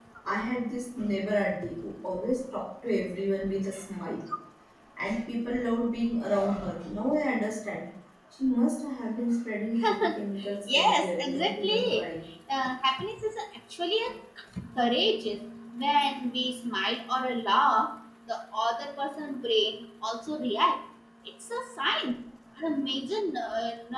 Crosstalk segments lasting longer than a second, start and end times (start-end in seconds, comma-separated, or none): 10.7-12.1